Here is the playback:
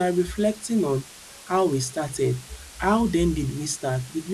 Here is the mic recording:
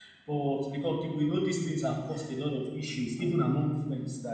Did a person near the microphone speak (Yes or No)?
Yes